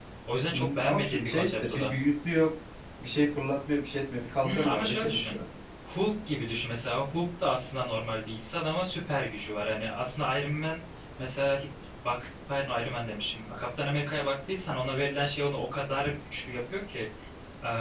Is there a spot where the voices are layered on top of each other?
Yes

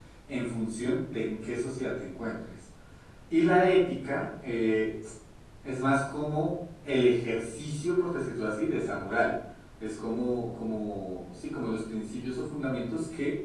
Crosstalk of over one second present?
No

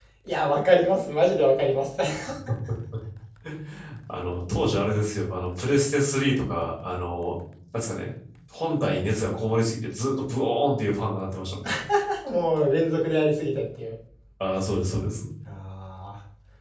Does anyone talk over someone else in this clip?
No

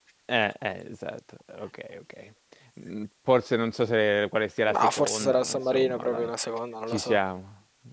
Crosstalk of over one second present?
Yes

